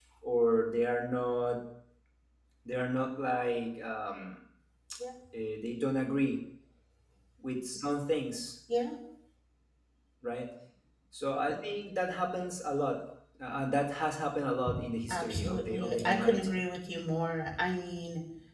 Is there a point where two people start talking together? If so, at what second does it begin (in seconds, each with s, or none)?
15.1 s